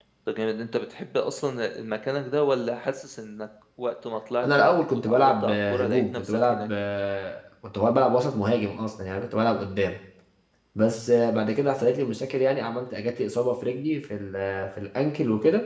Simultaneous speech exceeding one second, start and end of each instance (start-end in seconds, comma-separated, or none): 4.4-6.7